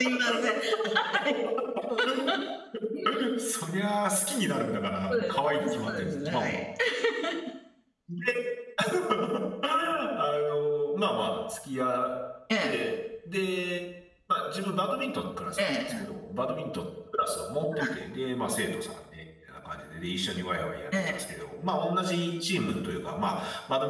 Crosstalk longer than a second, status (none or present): present